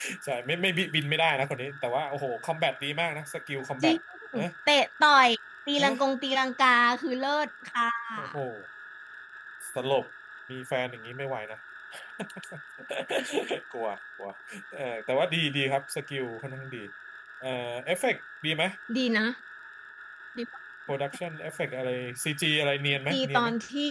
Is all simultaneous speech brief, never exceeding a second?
Yes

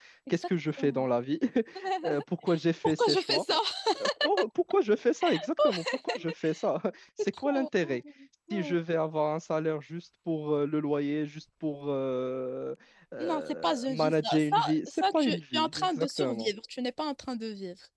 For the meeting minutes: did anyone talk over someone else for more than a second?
Yes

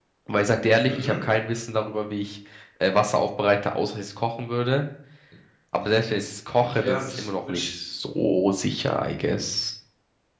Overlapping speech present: Yes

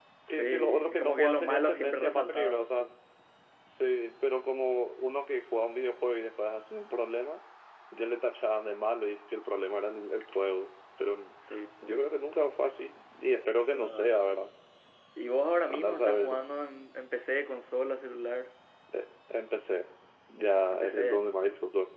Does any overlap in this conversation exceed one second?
Yes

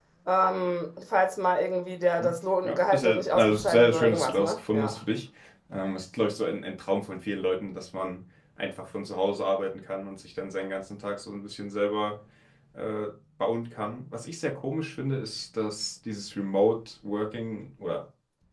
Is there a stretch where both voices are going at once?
Yes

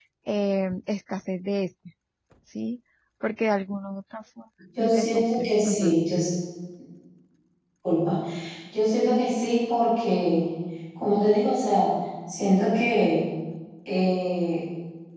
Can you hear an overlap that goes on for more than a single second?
Yes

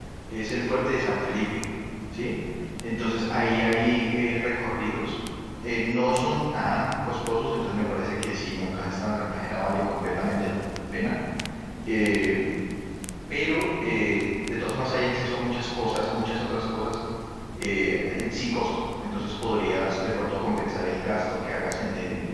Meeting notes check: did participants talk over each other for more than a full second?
No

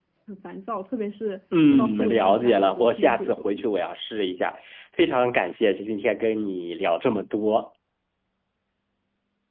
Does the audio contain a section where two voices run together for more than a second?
Yes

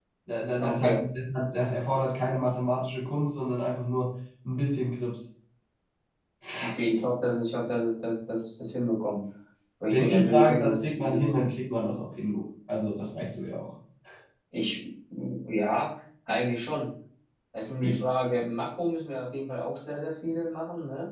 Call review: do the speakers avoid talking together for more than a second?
No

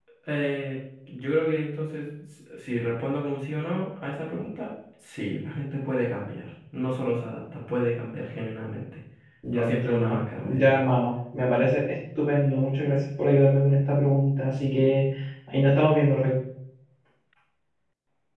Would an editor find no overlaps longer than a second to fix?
No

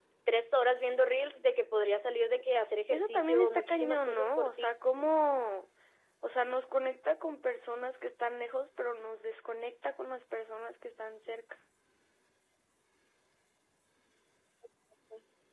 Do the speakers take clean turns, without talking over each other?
No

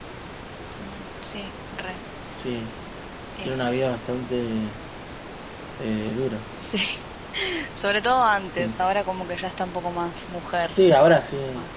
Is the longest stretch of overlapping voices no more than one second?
Yes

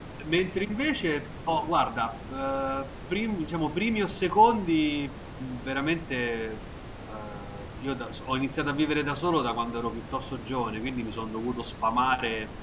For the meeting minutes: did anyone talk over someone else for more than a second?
No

